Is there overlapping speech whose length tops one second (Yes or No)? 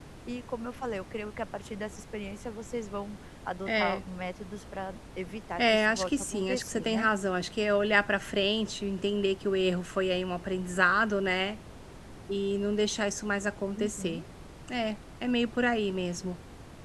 Yes